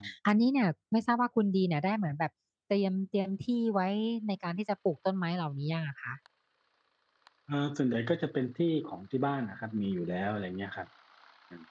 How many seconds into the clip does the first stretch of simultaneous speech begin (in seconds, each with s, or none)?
none